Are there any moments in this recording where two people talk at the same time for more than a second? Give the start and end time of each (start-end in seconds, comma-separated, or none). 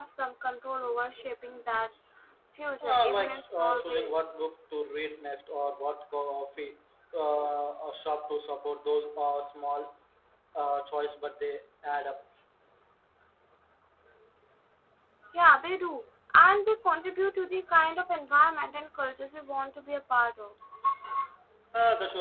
2.8-4.1